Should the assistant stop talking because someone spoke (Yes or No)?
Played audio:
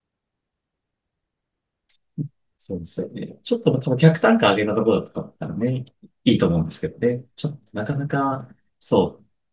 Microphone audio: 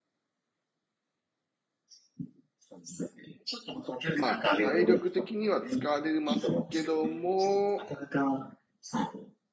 Yes